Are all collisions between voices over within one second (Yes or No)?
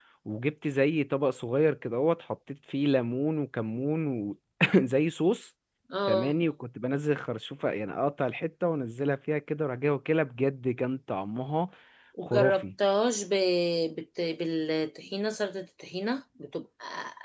Yes